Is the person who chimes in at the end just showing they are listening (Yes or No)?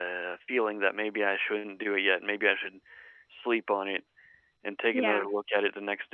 Yes